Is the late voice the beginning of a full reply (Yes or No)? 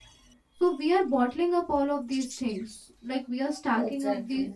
No